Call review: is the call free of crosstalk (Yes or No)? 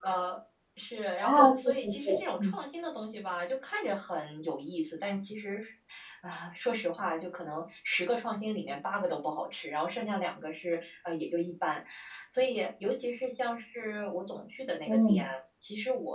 No